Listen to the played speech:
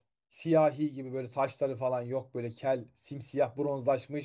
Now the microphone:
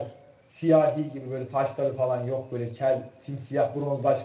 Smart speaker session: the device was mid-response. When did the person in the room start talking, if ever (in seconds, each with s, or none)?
none